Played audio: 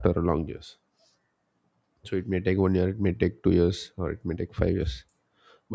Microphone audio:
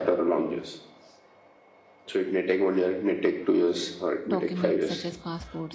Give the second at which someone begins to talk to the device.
4 s

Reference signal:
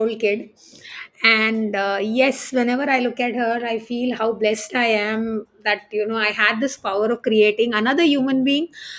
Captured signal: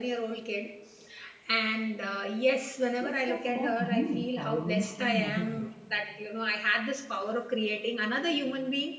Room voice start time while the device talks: 3 s

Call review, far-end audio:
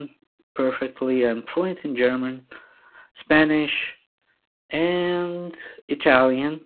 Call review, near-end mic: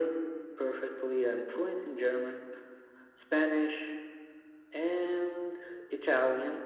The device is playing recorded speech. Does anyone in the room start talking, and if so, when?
none

